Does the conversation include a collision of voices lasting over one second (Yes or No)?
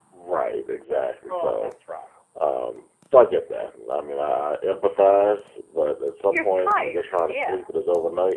Yes